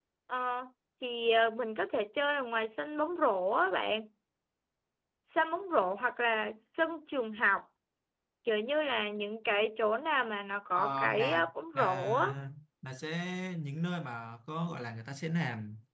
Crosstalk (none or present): present